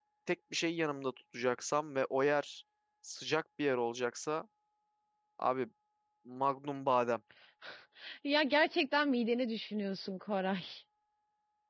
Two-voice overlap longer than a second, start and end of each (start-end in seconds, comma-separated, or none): none